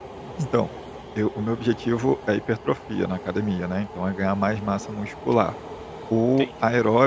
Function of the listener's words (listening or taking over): listening